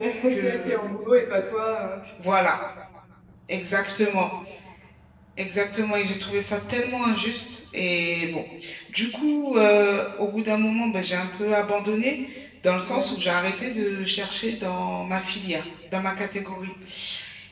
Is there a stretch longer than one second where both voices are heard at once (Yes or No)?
No